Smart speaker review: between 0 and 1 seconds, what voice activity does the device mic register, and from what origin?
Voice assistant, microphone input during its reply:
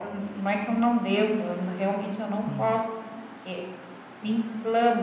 echo only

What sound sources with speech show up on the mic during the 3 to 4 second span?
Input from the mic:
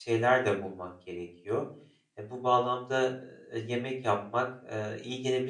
user only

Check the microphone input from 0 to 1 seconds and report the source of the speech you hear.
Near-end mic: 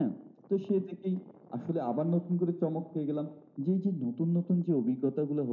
echo only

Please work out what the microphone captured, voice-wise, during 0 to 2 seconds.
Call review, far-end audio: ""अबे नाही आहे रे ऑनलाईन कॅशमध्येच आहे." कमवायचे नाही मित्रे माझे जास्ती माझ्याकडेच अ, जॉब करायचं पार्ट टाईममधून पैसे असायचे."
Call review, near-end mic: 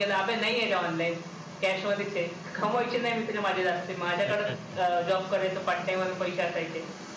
echo only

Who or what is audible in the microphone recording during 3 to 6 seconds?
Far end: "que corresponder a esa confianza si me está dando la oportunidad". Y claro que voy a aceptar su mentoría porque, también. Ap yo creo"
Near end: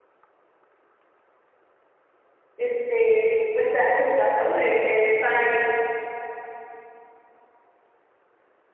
user only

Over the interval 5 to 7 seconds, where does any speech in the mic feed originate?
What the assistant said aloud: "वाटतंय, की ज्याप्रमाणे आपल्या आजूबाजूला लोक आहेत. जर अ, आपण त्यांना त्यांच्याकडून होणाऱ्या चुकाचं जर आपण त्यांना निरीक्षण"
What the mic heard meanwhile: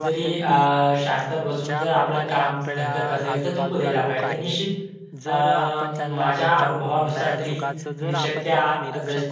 both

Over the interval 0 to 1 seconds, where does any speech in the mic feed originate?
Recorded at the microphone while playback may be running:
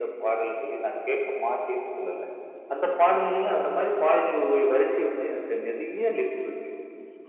echo only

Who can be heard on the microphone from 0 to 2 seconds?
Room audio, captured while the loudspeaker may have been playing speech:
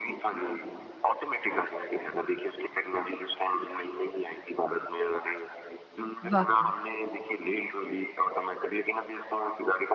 echo only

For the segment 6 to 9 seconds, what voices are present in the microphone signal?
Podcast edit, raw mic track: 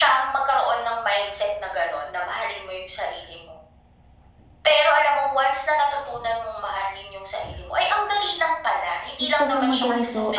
echo only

